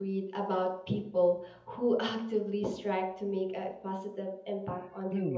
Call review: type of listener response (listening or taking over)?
taking over